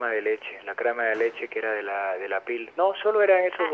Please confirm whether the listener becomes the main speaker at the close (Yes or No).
Yes